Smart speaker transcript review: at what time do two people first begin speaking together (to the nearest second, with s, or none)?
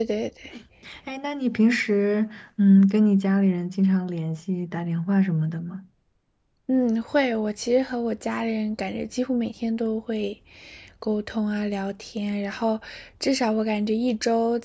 none